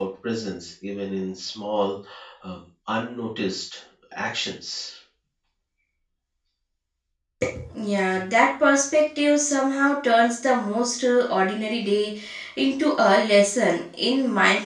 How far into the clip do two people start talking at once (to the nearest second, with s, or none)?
none